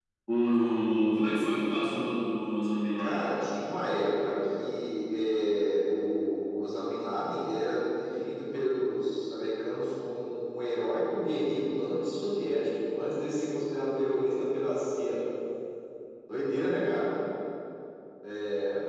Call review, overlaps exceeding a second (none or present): none